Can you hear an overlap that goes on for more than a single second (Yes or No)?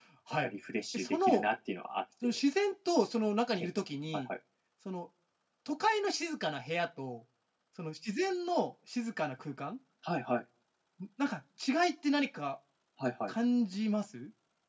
No